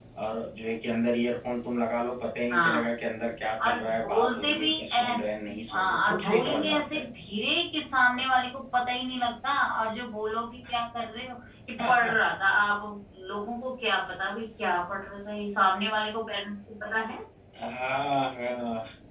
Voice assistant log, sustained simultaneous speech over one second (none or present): present